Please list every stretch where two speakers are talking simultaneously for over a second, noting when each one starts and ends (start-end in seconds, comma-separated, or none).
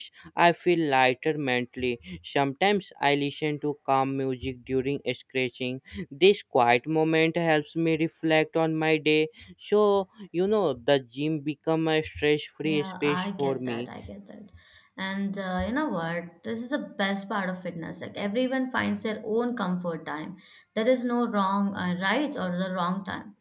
12.6-13.9